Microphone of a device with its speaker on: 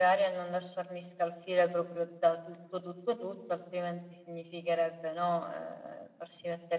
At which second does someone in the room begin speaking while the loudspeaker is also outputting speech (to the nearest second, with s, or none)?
none